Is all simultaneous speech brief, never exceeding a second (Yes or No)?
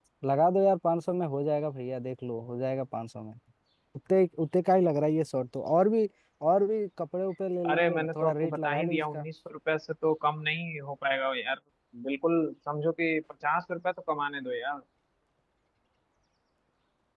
No